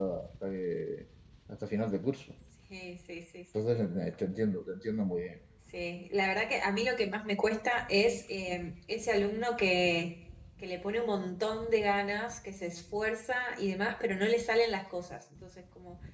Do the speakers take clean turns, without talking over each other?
Yes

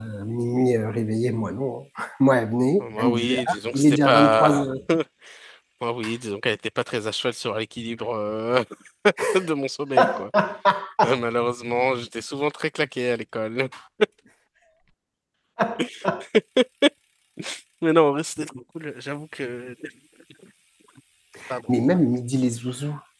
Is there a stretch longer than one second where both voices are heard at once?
Yes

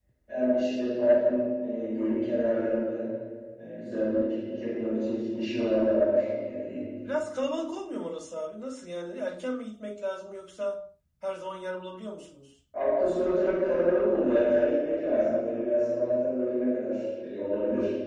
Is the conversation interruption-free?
Yes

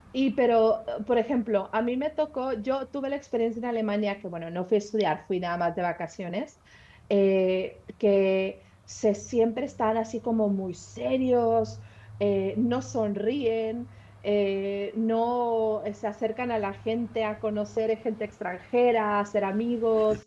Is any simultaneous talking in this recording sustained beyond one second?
No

